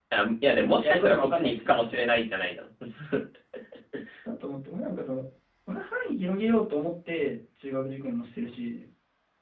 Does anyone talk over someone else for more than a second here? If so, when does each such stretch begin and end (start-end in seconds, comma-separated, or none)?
0.5-2.0